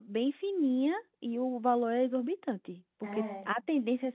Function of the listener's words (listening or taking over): listening